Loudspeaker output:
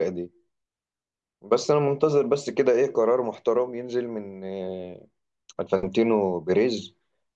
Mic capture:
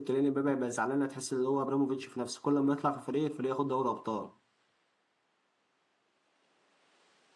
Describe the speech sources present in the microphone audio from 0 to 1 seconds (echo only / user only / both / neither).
user only